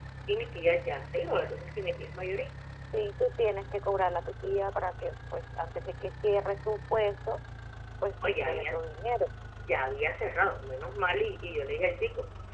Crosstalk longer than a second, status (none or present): none